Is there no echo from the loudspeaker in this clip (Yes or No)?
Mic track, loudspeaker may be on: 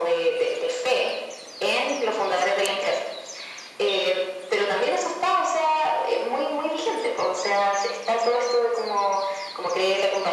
No